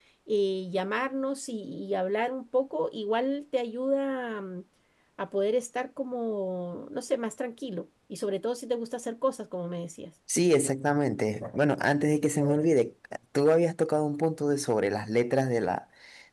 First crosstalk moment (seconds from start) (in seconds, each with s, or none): none